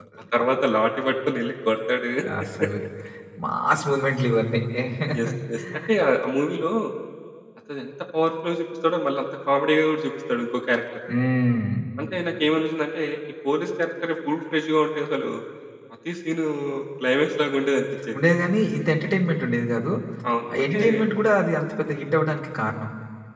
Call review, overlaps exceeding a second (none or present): none